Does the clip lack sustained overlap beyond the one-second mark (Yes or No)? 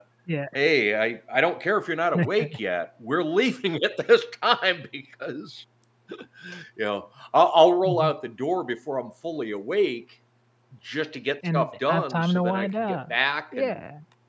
No